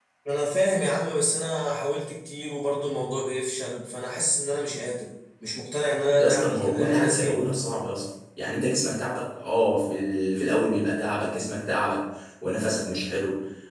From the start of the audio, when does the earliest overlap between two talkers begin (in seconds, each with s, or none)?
6.1 s